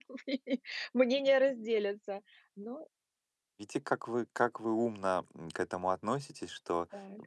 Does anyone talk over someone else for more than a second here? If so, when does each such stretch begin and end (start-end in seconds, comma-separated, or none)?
none